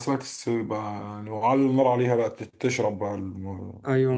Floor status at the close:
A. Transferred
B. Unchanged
A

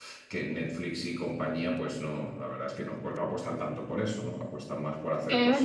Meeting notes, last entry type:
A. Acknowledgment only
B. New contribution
B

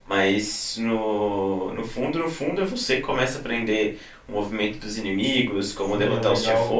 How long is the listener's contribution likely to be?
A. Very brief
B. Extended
B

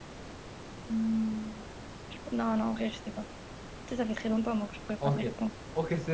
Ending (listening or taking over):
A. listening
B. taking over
B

